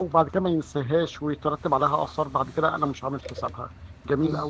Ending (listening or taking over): taking over